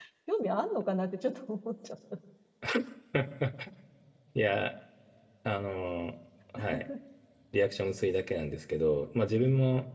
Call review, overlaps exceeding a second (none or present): none